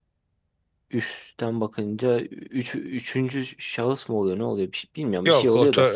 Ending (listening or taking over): taking over